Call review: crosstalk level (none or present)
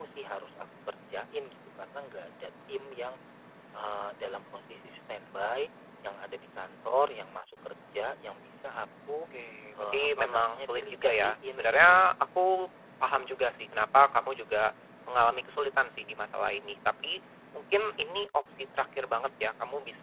present